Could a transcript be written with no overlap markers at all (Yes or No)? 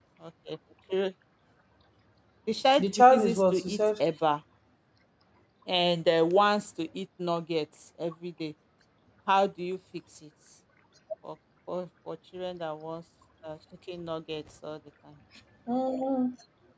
No